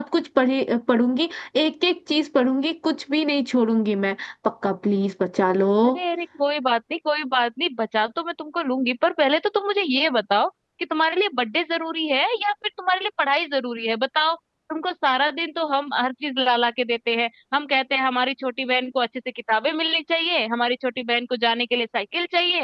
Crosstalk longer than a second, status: none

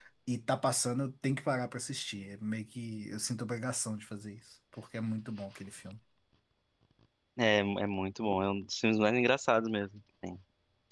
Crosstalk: none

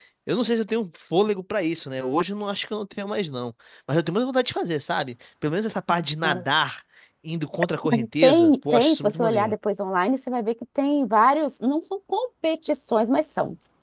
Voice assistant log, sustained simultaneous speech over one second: present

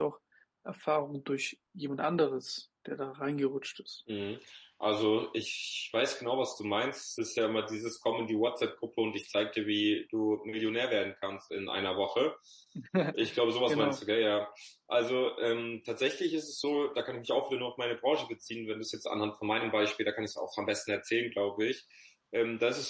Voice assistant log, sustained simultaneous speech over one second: none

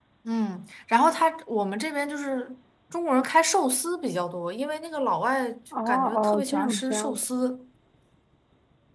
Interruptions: present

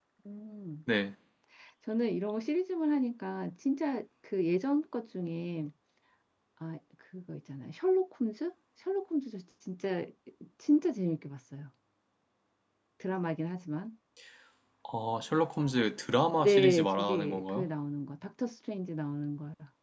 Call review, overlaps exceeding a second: present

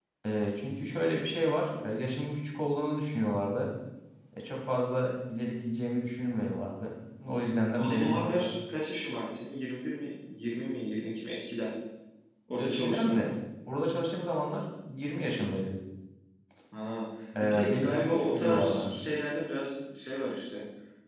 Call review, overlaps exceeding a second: present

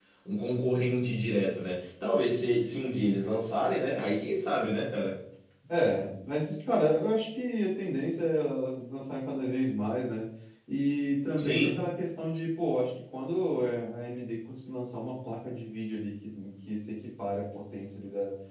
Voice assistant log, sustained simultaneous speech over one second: none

